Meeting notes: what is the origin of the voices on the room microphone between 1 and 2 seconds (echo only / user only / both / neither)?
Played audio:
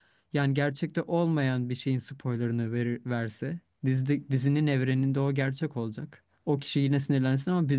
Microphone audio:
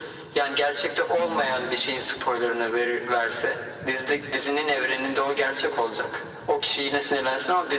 both